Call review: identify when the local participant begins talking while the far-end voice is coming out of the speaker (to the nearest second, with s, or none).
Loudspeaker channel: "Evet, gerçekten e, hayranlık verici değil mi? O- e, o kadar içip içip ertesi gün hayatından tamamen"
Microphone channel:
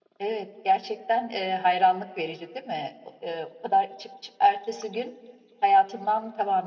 none